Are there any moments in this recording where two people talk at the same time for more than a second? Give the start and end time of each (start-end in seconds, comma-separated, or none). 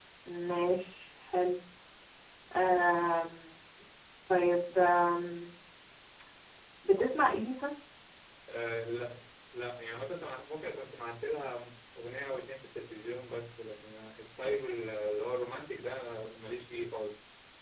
none